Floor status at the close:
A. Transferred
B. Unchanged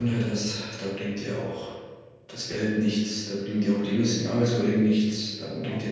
B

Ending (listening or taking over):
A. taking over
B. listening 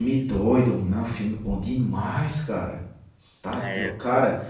B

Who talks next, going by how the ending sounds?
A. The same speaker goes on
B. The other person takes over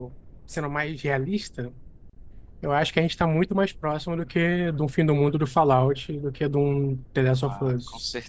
B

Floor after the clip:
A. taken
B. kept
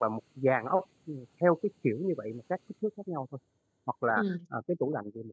B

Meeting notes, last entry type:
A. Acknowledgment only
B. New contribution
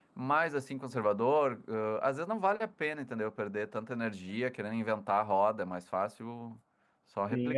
B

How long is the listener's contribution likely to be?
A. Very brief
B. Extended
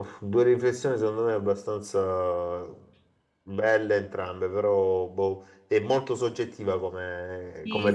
B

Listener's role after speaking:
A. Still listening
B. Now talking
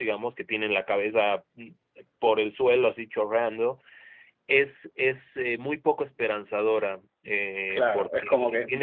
B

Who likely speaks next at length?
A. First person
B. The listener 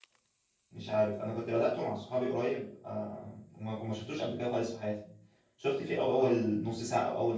A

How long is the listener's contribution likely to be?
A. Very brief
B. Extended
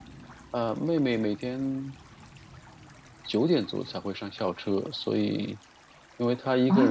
B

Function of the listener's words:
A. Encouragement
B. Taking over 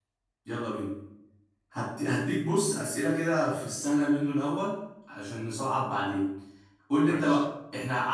A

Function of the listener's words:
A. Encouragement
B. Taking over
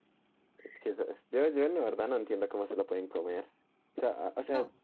A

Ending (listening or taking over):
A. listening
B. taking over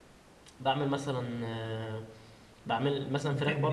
A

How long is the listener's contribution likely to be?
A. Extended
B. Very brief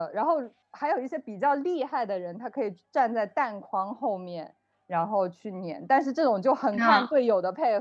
B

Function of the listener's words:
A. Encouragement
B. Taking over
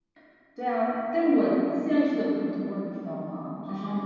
A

